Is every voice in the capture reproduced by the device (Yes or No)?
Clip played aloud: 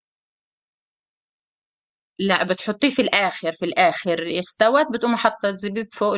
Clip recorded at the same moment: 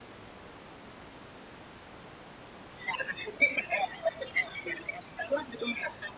Yes